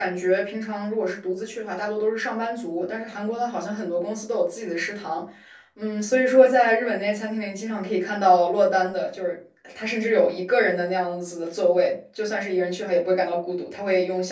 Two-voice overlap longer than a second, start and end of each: none

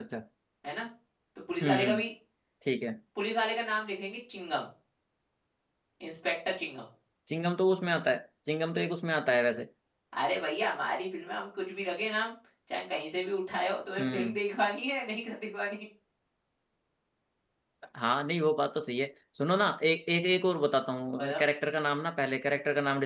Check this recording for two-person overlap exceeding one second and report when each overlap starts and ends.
none

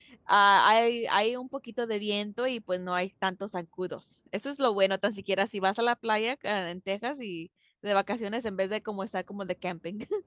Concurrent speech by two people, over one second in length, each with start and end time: none

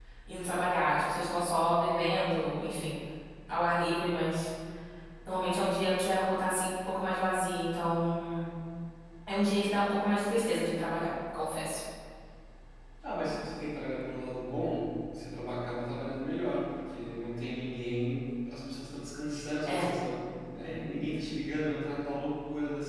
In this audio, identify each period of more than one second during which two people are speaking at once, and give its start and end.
none

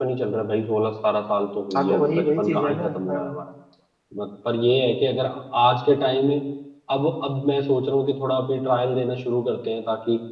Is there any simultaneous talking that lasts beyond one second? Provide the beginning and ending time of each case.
1.7-3.3

